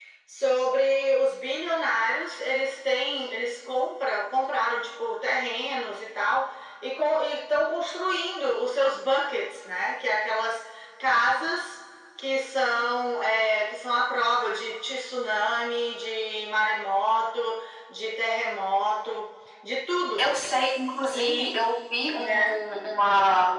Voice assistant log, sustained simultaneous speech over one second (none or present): none